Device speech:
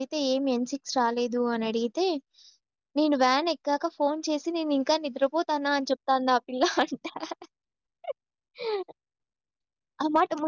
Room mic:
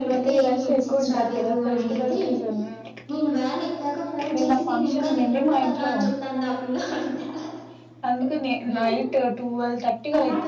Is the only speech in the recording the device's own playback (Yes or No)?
No